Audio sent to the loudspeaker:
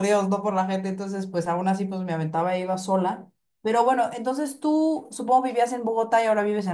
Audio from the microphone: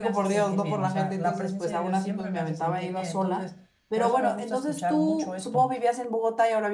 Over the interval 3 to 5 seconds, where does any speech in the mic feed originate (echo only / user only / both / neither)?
both